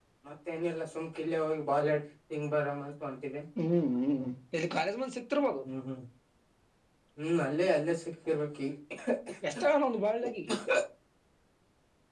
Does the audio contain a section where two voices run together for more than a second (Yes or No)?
No